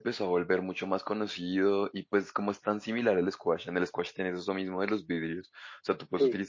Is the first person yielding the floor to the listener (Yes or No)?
No